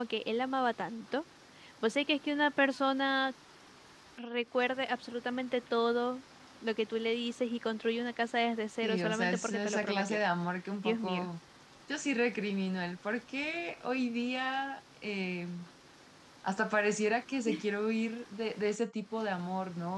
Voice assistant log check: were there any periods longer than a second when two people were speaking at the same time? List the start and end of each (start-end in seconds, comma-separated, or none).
8.8-10.2